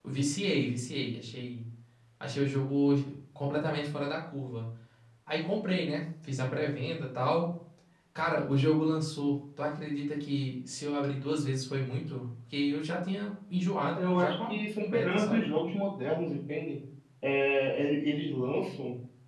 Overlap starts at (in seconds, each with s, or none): 14.0 s